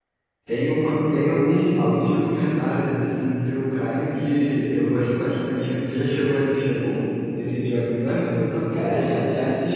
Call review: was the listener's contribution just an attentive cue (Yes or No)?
No